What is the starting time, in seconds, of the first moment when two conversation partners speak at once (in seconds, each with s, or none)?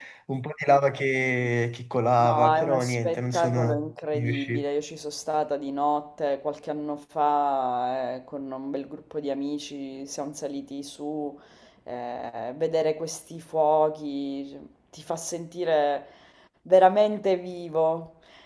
2.2 s